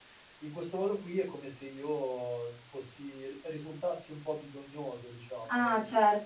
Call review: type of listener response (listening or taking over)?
taking over